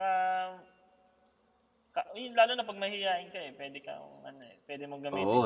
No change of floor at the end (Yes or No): No